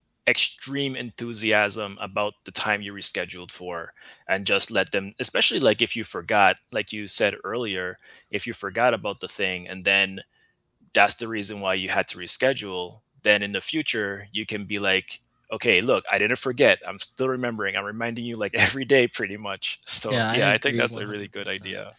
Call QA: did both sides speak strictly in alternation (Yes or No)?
No